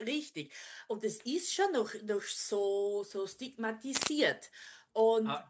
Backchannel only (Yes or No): No